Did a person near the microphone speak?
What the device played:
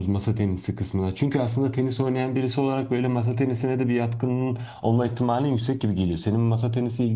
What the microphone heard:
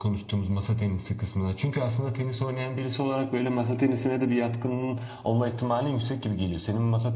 No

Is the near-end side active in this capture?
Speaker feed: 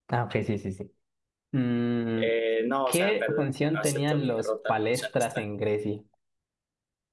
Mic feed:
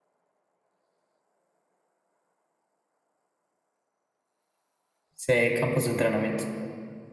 Yes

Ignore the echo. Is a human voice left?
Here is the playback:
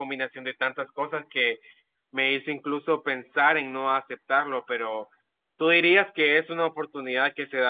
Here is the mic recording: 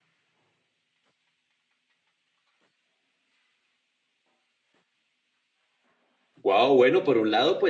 Yes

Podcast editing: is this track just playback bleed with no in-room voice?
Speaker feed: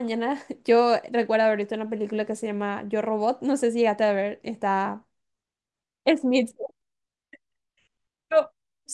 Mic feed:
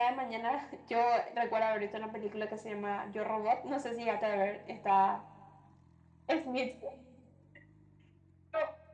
Yes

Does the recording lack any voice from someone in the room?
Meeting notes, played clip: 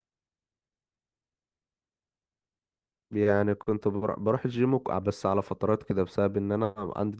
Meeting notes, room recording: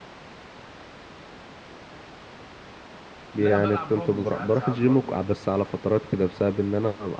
No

